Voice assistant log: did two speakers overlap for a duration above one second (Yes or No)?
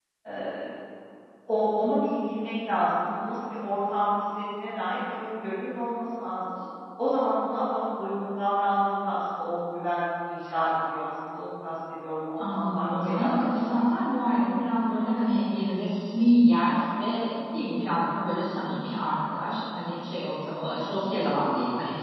Yes